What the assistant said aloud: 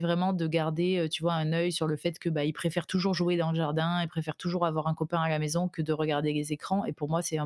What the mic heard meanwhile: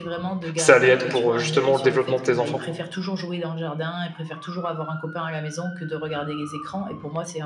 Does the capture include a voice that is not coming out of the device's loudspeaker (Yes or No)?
Yes